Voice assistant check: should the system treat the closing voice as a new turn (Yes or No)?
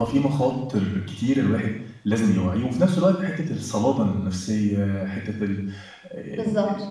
Yes